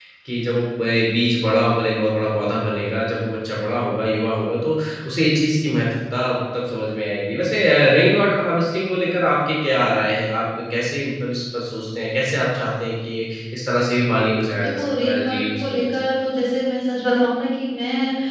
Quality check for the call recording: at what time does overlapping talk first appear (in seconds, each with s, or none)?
14.5 s